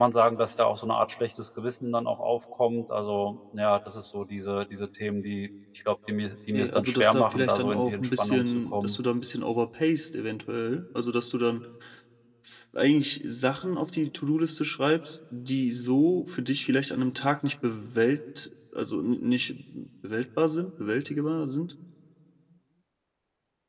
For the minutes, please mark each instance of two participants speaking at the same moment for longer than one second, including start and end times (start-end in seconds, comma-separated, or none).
6.5-9.0